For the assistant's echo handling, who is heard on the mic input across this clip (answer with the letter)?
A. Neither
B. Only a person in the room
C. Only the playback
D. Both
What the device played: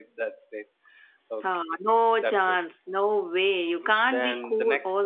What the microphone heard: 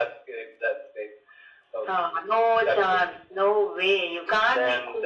C